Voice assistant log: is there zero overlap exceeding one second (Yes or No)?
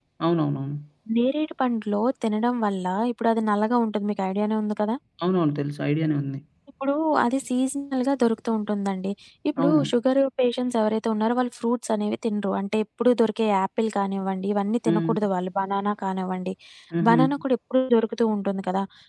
Yes